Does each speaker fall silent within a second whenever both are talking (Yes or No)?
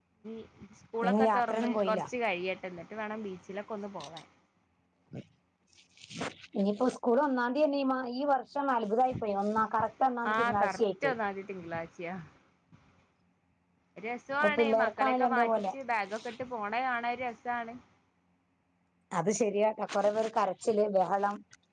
No